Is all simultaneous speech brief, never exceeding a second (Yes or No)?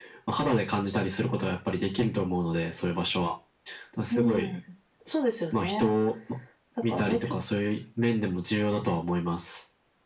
Yes